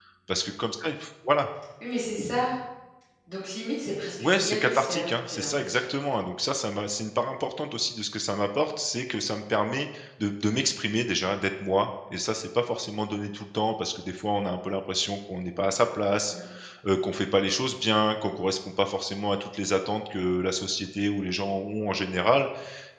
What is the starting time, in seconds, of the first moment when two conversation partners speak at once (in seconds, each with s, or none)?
4.2 s